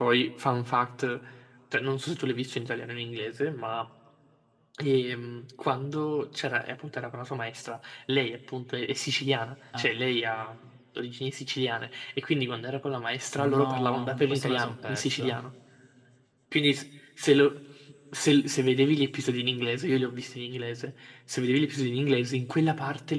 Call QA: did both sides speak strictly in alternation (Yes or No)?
No